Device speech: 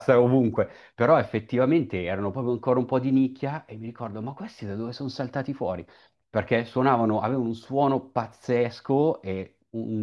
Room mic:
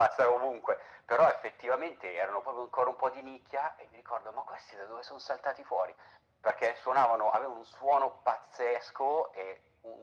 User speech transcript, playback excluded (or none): none